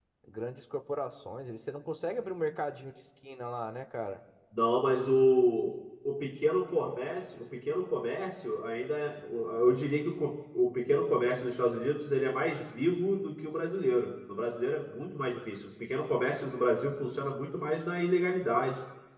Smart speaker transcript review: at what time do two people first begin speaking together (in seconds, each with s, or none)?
none